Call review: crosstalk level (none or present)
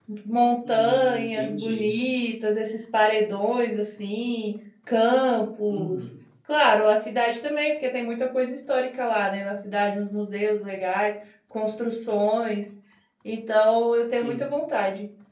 present